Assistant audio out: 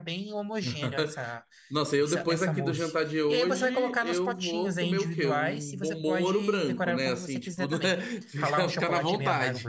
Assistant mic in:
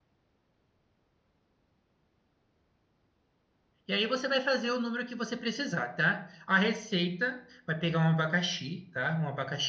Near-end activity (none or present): present